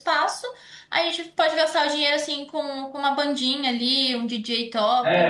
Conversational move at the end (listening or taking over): taking over